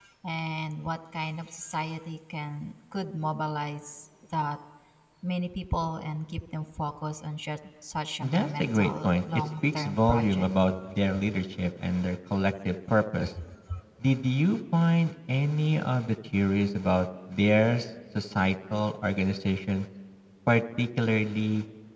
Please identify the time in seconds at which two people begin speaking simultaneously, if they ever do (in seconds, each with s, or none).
8.2 s